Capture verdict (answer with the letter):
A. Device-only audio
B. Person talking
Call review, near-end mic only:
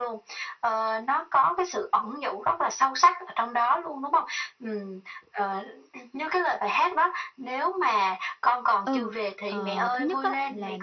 B